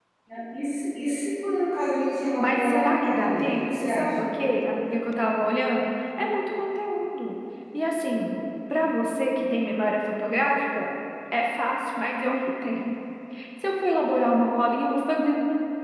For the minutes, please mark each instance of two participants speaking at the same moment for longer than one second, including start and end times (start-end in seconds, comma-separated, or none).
2.4-4.1